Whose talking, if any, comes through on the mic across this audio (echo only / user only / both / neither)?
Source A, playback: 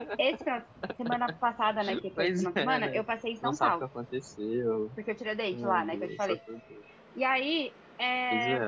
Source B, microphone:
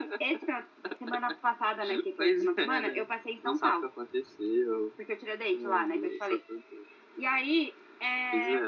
echo only